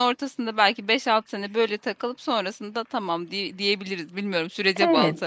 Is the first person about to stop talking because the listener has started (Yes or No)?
Yes